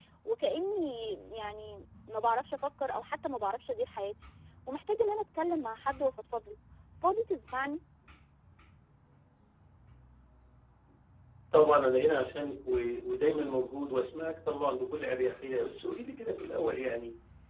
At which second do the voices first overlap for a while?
none

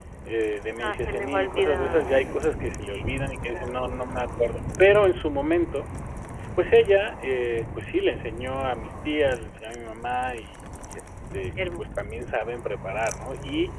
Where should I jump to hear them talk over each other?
0.8 s

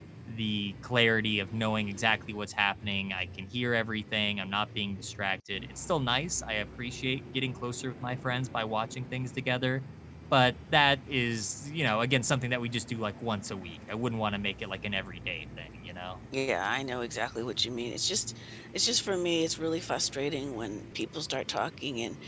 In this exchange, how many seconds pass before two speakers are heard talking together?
none

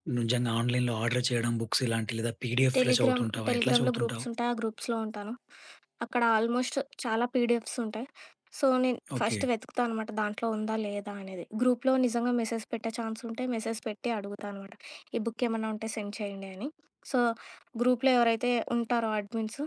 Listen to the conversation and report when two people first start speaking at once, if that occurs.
2.8 s

